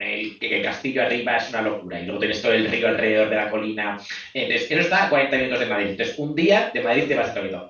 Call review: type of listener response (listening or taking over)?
listening